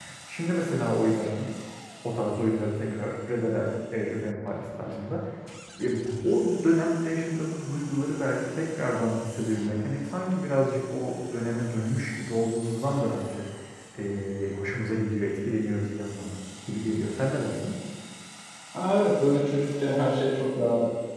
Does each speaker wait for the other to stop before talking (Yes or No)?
Yes